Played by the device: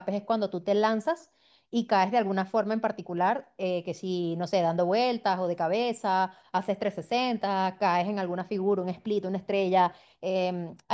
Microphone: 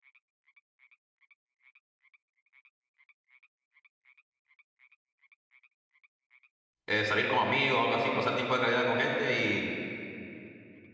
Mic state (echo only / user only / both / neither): user only